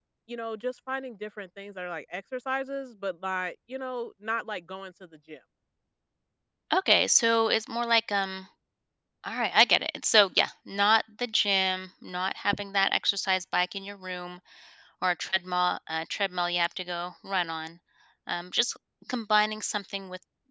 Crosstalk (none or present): none